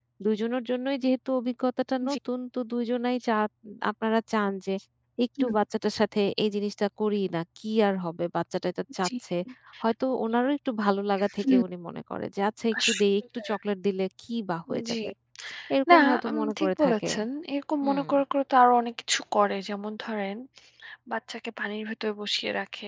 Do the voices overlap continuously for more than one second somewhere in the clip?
Yes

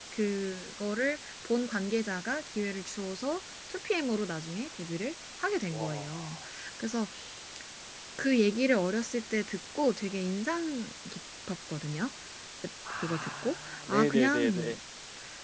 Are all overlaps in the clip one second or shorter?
No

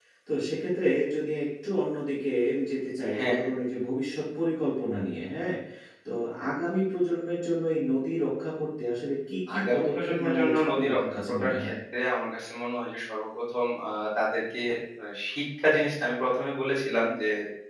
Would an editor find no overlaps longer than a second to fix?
No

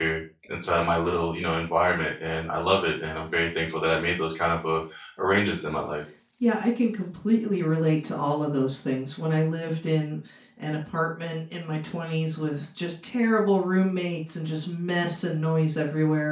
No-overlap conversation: Yes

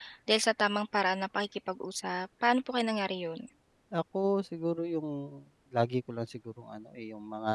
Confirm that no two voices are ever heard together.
Yes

